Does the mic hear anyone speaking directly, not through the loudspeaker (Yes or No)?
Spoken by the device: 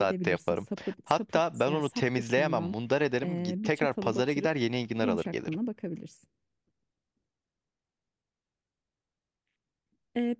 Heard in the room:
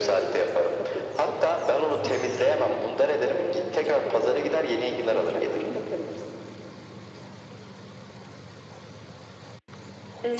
No